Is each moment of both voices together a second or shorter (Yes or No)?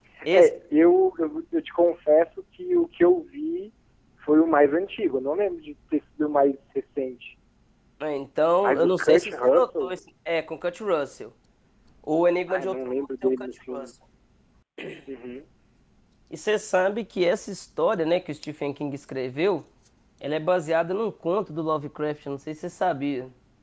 No